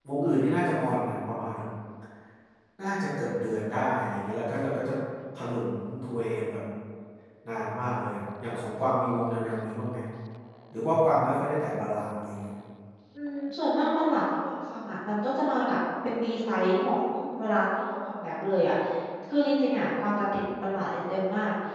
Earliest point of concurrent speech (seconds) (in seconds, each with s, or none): none